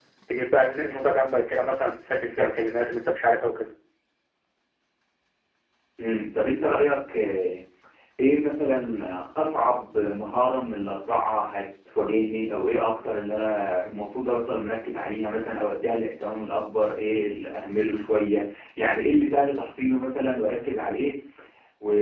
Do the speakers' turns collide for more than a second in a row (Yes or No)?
No